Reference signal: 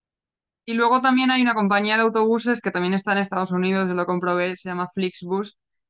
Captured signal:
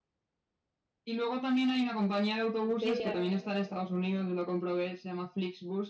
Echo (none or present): present